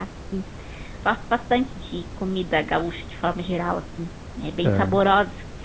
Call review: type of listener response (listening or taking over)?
listening